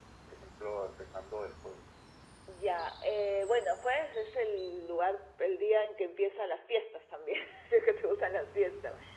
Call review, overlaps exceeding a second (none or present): none